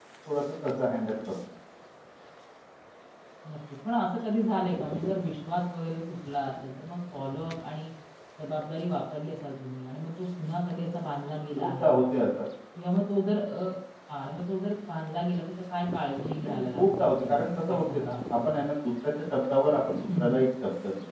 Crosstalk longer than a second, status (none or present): present